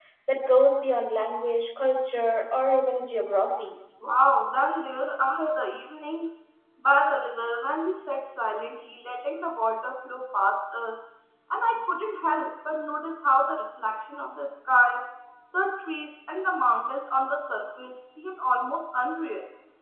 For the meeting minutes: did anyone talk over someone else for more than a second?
No

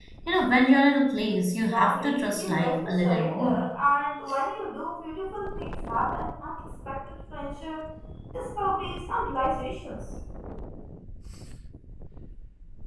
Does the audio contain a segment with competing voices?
Yes, from 1.7 s

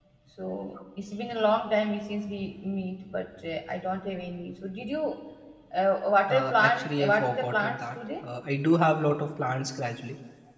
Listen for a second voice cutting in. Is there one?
Yes, from 6.4 s

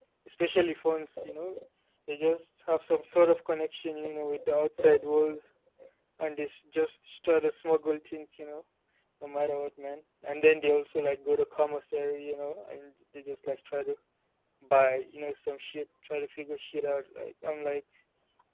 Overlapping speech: No

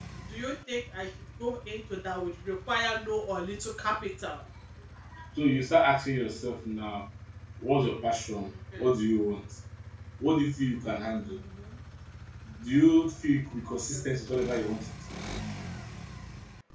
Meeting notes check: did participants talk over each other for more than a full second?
No

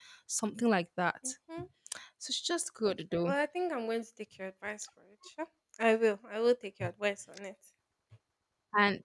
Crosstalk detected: No

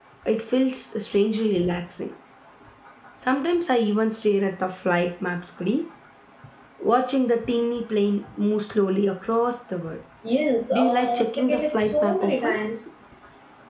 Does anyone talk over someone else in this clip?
Yes, from 10.7 s

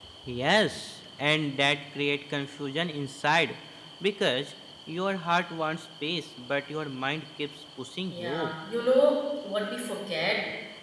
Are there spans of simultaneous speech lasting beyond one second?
No

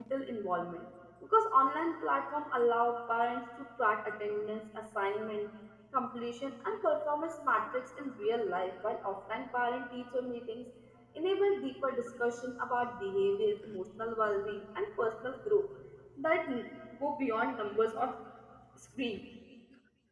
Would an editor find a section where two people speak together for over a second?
No

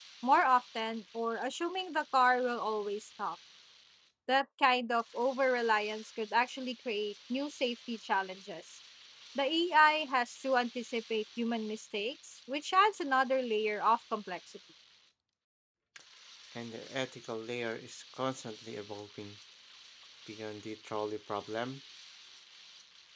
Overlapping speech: No

